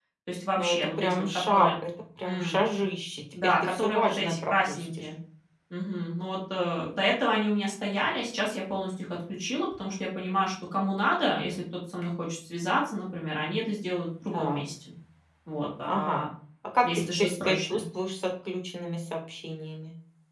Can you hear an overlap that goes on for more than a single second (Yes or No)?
Yes